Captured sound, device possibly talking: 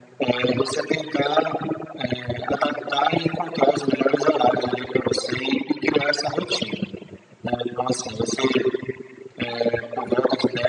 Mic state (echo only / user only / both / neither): echo only